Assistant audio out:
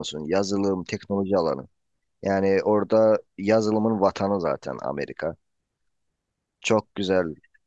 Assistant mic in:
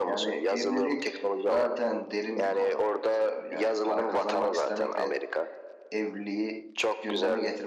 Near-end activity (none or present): present